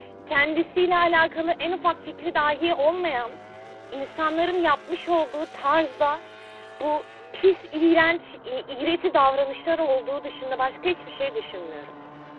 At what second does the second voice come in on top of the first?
none

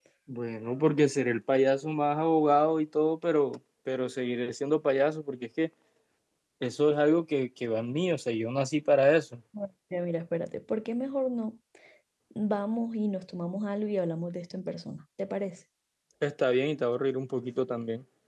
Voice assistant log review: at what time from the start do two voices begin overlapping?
none

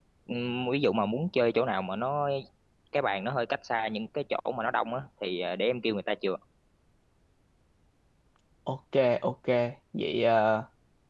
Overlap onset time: none

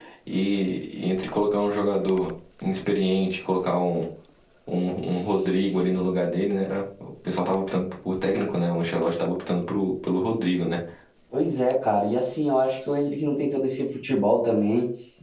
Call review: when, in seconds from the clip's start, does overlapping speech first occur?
none

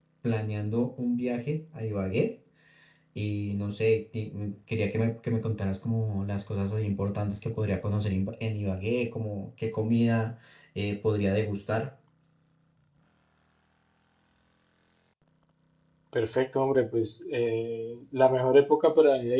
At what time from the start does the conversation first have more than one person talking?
none

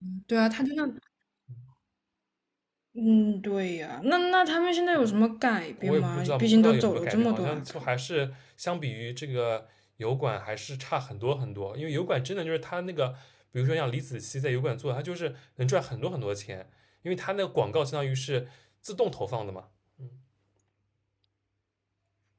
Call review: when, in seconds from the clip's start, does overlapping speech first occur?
5.8 s

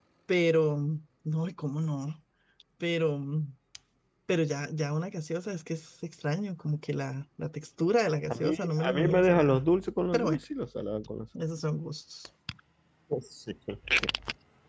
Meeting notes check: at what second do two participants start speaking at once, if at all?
8.3 s

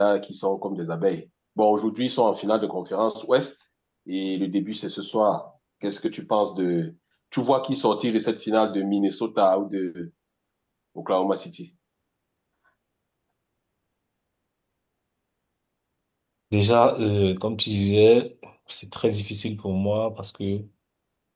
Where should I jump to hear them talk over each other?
none

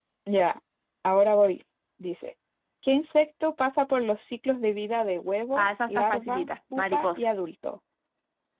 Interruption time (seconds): 5.5 s

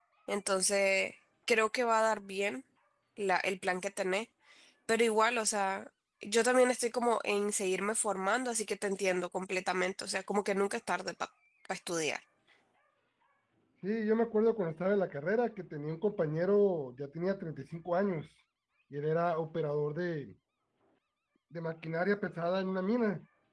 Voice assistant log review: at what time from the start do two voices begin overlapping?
none

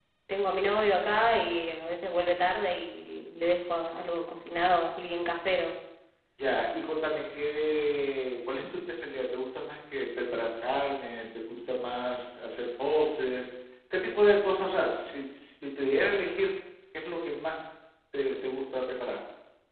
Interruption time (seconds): none

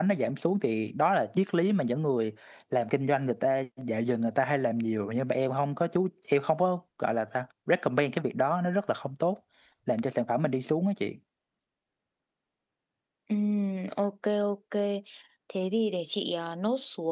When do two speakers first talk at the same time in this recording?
none

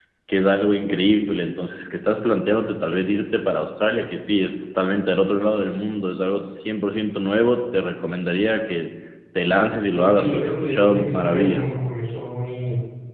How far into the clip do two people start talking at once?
9.9 s

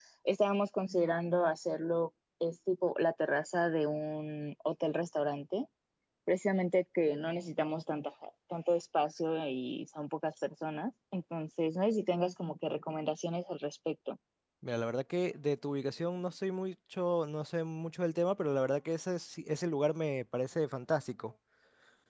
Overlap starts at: none

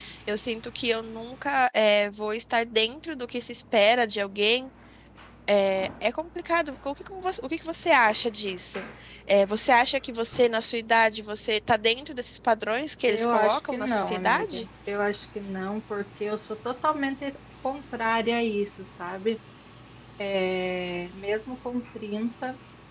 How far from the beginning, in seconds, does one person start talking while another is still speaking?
13.1 s

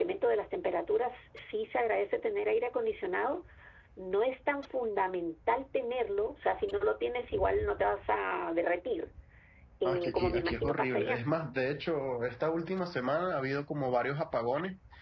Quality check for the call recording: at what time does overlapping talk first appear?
9.8 s

